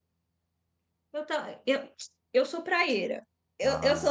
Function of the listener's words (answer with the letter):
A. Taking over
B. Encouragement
B